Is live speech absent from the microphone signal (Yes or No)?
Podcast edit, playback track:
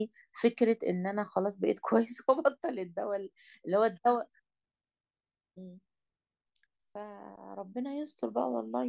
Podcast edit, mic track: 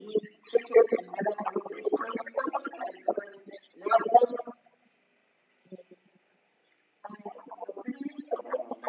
Yes